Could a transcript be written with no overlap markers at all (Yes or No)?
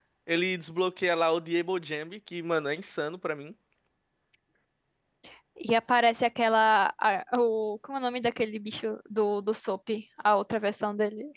Yes